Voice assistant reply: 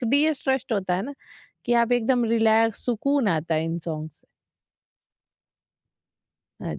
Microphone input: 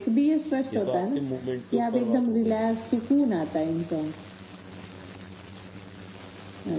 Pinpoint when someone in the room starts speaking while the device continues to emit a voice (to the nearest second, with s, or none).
1 s